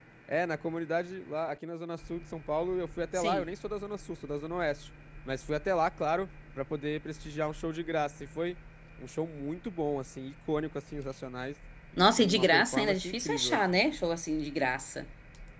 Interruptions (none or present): present